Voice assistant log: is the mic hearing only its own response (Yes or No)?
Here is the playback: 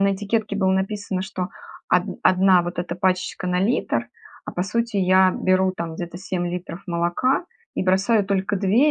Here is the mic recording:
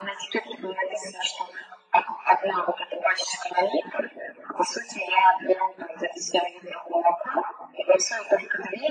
Yes